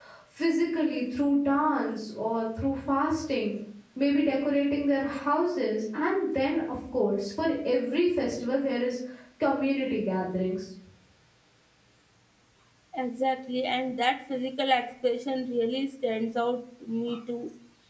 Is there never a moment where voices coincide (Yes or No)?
Yes